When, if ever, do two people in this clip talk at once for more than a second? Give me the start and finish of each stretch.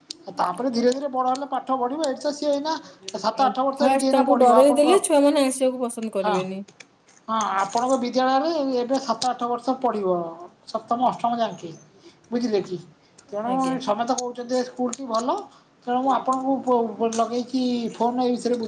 3.4-4.9

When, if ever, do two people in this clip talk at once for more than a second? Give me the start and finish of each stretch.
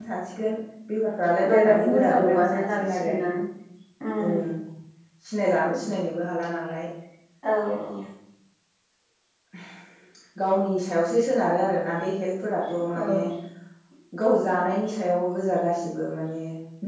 1.5-3.1

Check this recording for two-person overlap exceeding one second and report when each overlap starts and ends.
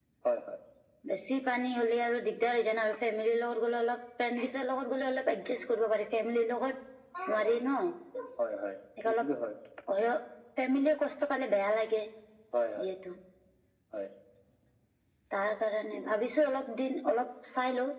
none

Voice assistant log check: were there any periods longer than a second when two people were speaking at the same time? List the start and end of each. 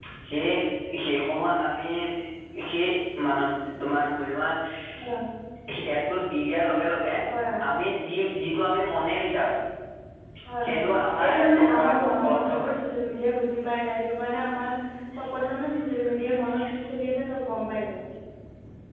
11.2-12.7

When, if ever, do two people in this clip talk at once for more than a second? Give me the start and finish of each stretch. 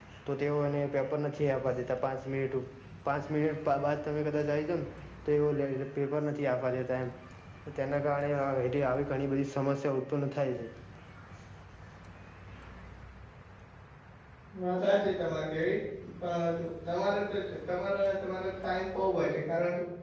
none

